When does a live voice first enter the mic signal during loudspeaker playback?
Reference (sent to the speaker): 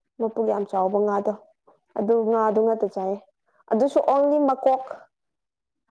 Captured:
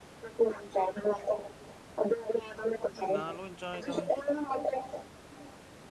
3.0 s

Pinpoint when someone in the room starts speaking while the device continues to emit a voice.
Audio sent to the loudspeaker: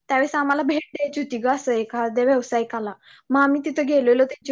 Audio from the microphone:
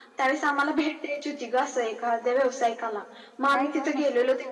3.5 s

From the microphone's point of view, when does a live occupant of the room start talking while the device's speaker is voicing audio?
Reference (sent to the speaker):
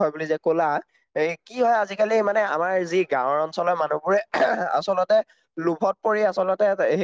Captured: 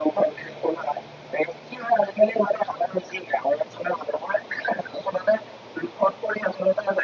none

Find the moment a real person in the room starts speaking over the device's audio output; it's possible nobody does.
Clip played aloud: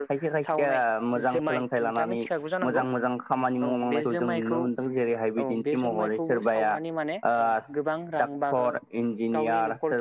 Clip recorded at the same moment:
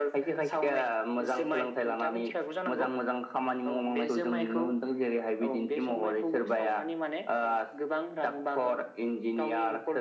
none

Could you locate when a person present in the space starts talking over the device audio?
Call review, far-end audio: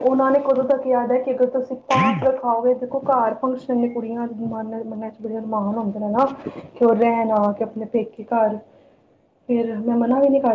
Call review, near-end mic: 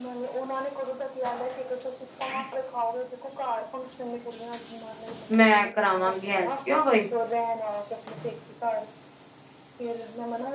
5.3 s

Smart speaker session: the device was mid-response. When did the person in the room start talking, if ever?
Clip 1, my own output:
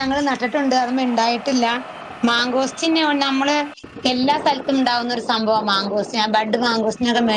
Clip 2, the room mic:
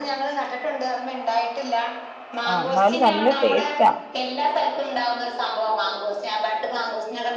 2.5 s

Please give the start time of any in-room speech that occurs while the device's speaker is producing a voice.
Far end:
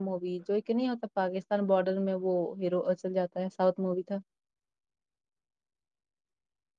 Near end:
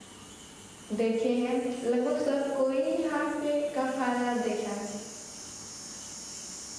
1.0 s

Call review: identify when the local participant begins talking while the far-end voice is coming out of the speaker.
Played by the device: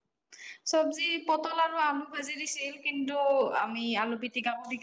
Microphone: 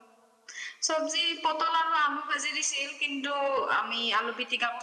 none

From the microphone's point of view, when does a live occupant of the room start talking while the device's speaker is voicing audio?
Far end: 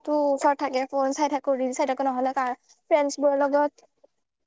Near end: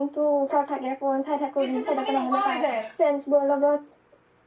1.6 s

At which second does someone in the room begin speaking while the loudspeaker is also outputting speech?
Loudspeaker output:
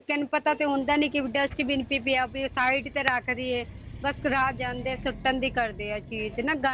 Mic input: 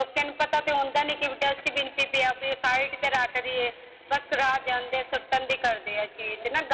none

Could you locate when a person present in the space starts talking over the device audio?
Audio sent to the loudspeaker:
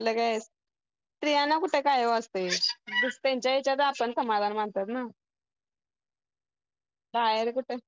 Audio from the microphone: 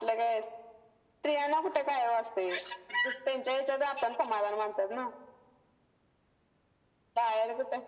none

